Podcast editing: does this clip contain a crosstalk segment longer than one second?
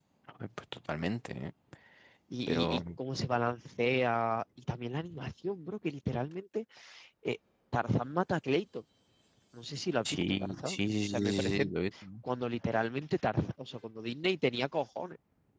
Yes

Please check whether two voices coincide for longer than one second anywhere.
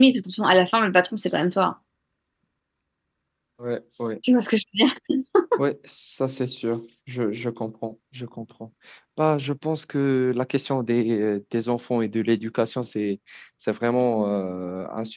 No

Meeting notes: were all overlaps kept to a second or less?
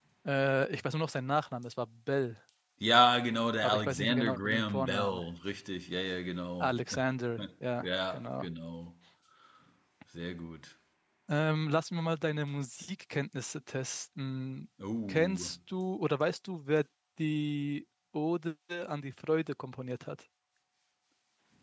No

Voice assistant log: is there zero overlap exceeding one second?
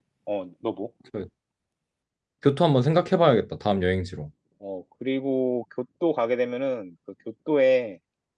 Yes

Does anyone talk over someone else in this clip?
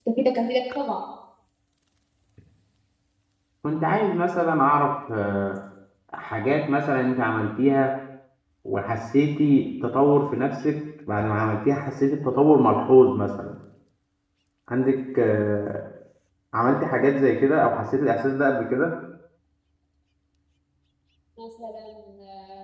No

